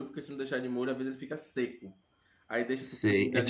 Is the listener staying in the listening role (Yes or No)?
No